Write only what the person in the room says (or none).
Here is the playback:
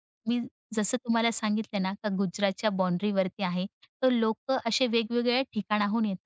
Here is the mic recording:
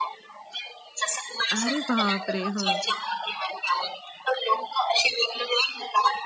अरे बापरे! हो.